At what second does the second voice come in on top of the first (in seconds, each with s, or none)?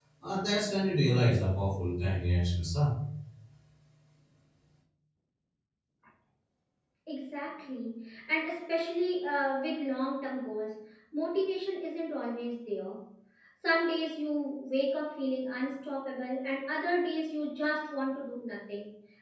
none